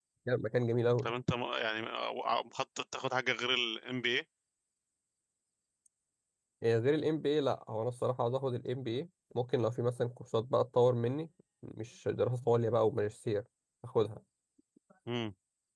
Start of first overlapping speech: none

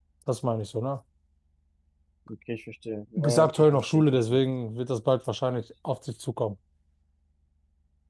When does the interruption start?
3.2 s

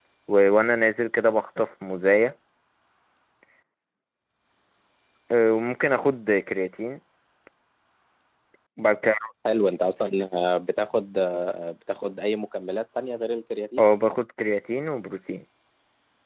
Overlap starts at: none

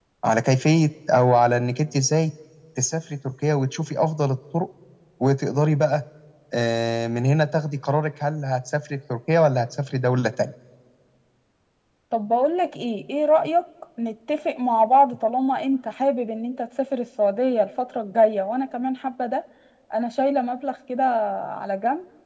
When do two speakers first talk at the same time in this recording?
none

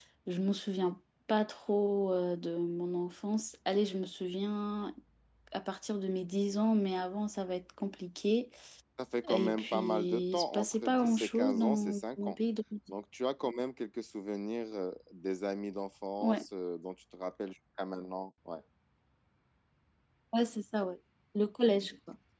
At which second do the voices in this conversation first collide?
9.3 s

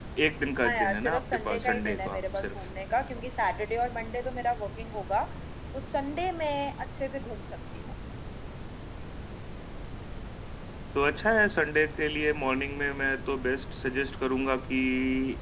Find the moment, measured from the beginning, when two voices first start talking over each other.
0.7 s

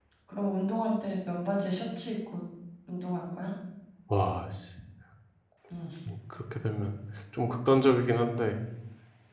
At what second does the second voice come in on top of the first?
none

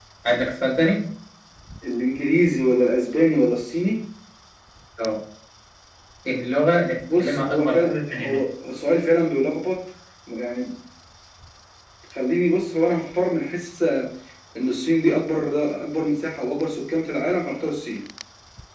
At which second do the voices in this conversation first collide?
7.1 s

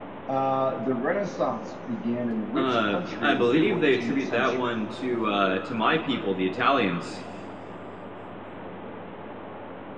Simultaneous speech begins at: 2.5 s

